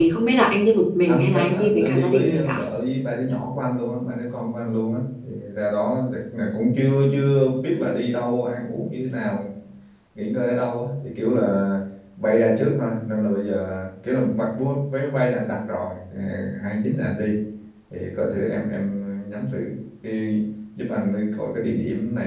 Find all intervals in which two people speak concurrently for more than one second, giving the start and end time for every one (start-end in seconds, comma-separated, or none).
1.1-2.6